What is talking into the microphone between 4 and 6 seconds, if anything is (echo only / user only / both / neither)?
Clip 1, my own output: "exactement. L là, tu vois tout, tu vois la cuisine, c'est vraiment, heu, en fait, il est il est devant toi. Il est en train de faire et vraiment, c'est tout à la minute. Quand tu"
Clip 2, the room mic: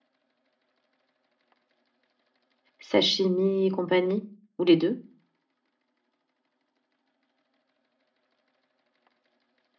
user only